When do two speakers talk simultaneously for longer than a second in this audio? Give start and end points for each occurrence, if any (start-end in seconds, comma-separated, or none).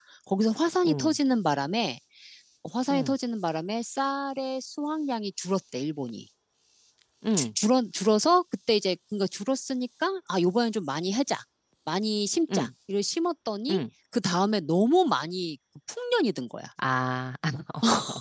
none